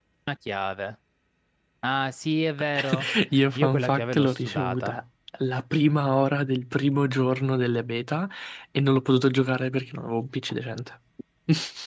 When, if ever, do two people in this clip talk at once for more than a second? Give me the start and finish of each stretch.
3.5-5.0

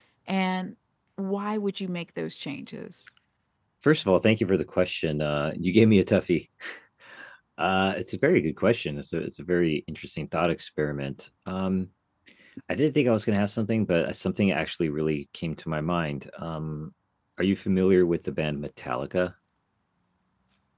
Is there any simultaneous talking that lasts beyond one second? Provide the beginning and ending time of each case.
none

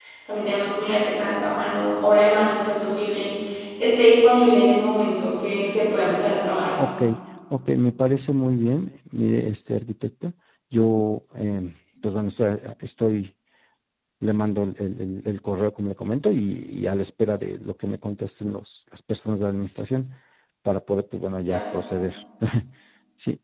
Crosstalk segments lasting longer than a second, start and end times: none

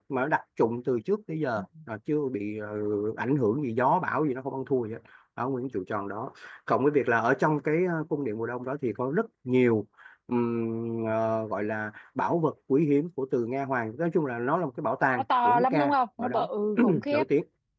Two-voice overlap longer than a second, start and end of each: 15.2-16.5

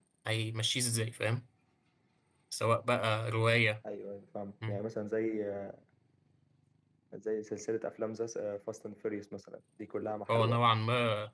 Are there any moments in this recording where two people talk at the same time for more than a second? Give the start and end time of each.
none

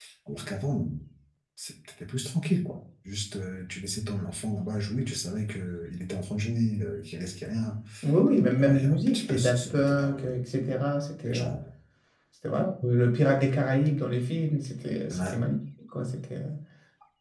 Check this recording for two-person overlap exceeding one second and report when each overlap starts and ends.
8.6-10.3

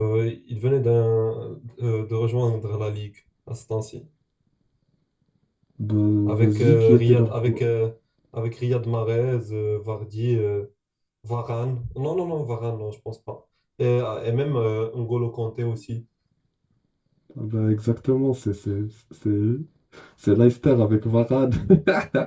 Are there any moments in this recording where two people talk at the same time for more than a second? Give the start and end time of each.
6.3-7.6

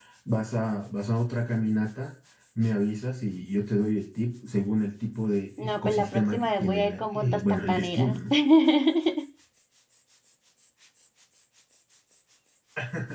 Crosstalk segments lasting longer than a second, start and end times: 5.6-8.2

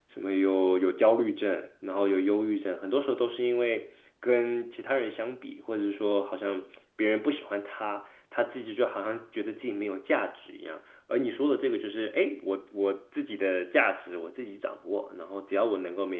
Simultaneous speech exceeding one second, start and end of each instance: none

